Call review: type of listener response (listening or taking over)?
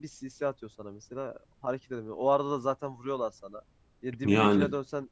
listening